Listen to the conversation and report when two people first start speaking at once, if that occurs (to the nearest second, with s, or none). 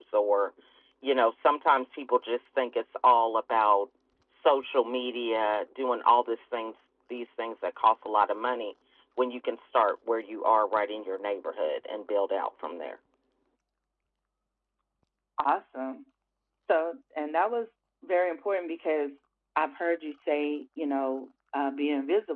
none